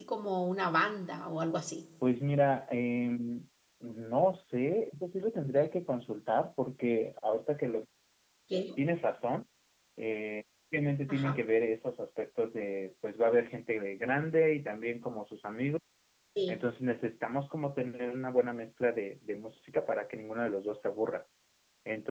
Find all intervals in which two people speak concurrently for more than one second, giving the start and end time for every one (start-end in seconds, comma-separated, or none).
none